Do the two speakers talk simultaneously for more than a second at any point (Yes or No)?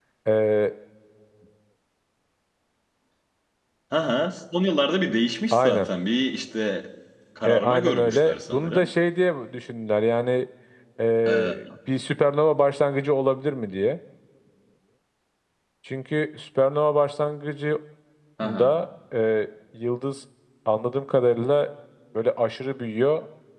Yes